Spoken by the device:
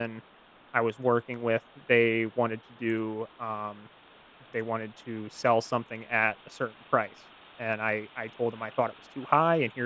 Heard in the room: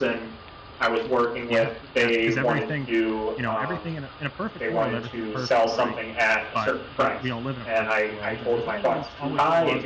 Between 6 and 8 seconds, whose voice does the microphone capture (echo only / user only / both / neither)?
both